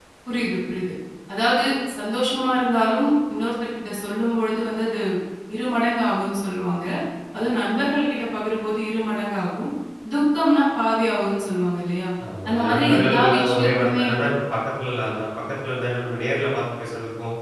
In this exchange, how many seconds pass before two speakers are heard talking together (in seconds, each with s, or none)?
12.5 s